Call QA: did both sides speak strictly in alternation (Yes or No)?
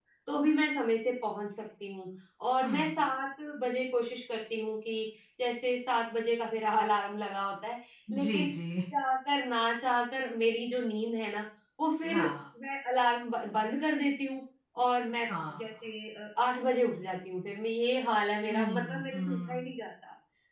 No